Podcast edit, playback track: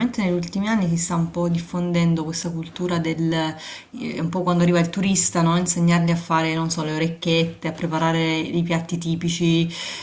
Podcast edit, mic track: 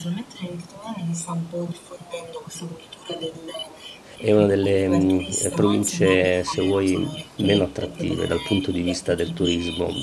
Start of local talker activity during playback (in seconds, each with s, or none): 4.2 s